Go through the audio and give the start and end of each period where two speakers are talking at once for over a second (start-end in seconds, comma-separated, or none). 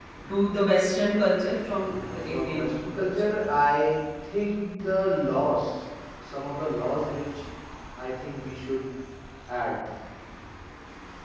1.8-3.4